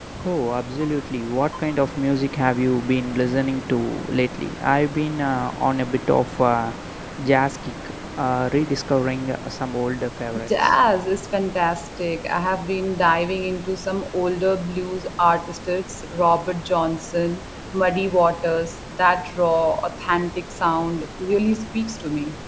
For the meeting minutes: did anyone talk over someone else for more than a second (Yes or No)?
No